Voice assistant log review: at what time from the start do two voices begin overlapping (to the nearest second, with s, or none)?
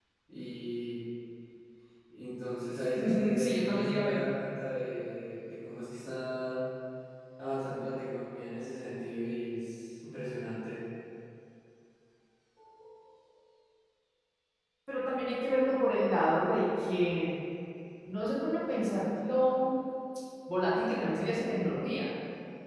3 s